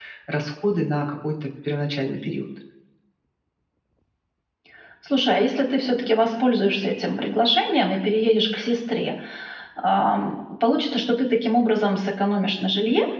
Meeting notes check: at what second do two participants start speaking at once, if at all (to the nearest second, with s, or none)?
none